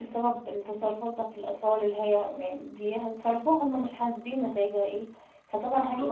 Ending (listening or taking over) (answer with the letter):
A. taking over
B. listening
B